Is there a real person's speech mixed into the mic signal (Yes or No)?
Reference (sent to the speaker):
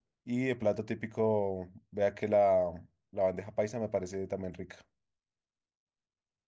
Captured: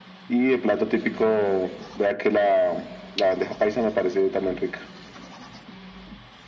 No